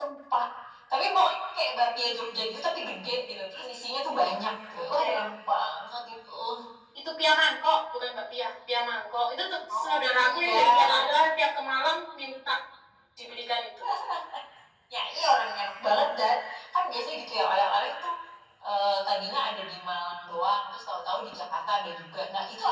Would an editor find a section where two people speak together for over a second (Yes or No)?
Yes